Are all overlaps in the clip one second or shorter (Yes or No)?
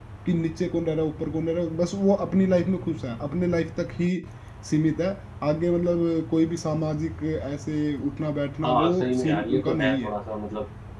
No